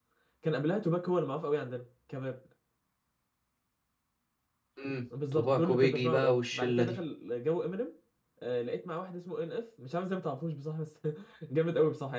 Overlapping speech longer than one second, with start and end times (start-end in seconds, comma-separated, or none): 5.3-7.0